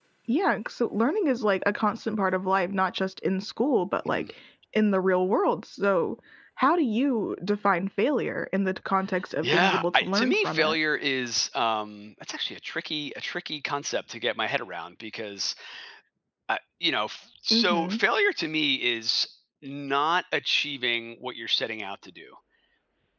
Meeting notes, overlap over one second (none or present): present